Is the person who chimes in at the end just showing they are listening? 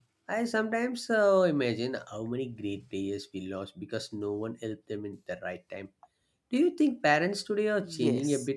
No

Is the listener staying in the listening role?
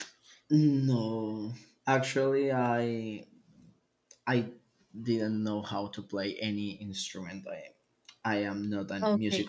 No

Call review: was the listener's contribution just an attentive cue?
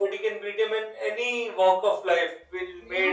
Yes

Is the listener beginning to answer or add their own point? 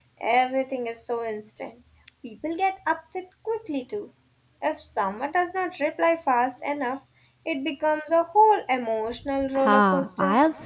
Yes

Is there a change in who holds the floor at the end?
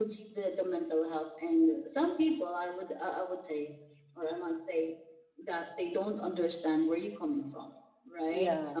No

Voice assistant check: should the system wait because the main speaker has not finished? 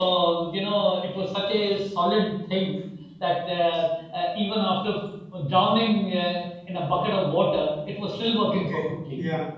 No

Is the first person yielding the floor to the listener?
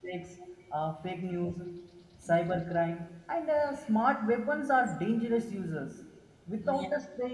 No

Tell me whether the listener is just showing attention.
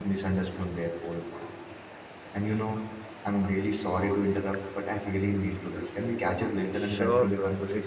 No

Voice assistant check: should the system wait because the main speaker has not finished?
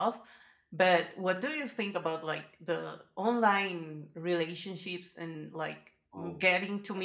Yes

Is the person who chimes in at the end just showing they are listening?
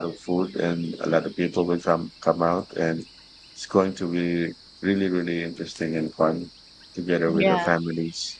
Yes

